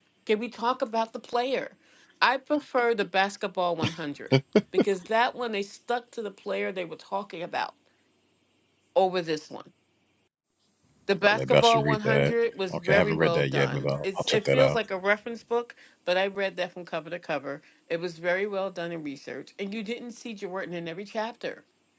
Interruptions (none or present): present